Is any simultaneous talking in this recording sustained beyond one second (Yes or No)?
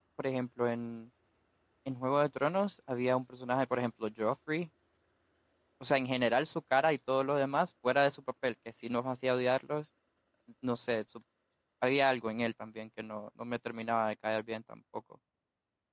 No